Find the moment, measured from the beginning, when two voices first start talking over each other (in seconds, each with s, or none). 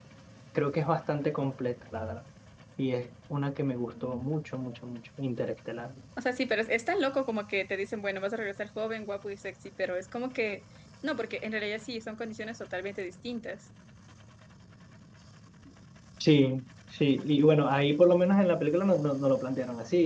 none